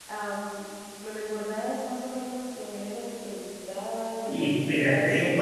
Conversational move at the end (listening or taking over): taking over